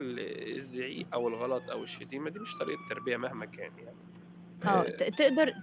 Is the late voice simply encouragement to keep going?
No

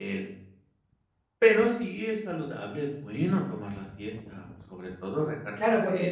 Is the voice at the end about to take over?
Yes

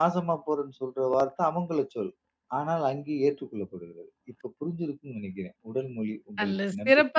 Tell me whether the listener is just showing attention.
No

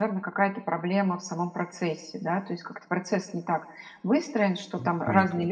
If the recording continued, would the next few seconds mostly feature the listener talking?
No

